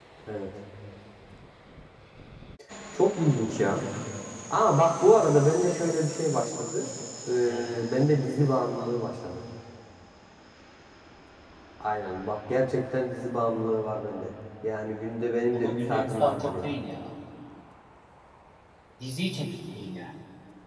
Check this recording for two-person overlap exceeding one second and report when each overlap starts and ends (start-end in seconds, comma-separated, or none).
15.5-16.7